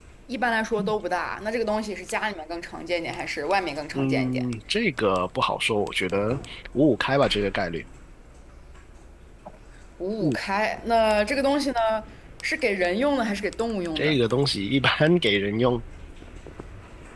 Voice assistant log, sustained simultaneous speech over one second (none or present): none